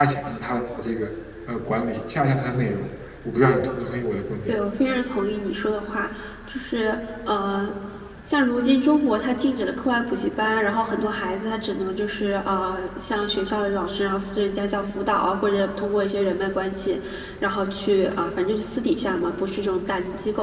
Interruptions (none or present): none